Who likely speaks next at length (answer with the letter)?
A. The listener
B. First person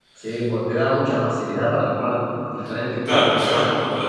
A